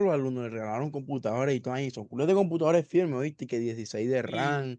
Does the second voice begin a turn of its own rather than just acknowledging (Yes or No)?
No